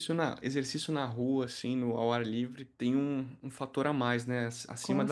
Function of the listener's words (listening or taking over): taking over